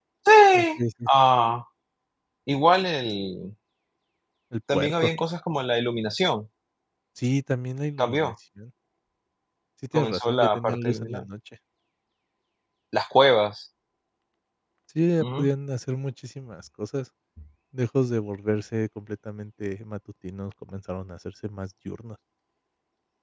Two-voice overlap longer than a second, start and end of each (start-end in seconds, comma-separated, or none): 9.9-11.2